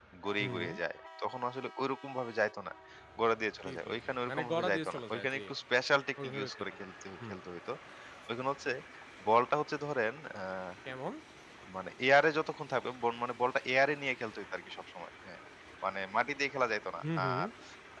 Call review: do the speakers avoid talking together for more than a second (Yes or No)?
No